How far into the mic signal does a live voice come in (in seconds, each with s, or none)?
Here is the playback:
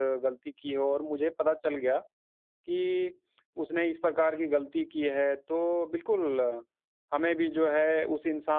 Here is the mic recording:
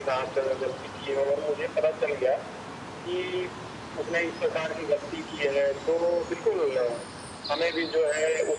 none